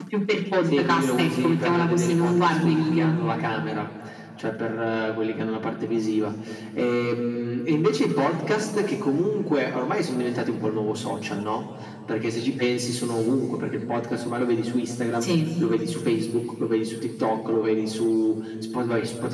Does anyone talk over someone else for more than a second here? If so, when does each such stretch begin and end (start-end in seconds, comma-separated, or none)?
0.7-3.1